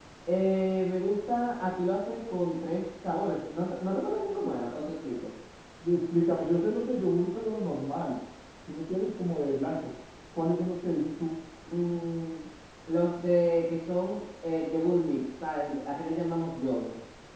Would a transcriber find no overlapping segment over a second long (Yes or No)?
Yes